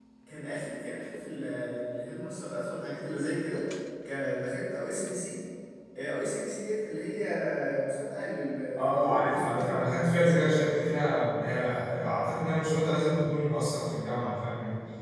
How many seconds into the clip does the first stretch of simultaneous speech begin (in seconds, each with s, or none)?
8.8 s